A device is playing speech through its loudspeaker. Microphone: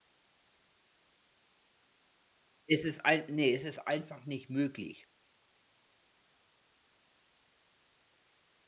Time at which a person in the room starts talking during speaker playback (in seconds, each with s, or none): 2.7 s